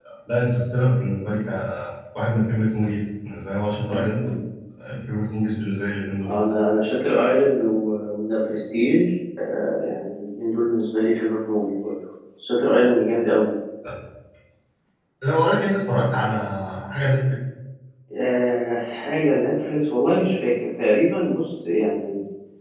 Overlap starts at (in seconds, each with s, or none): none